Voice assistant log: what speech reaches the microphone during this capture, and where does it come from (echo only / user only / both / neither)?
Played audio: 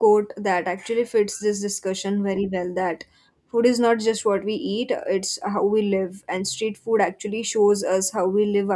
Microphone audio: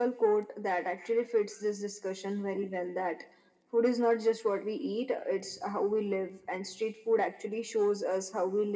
echo only